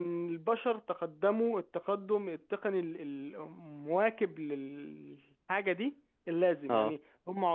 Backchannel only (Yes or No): Yes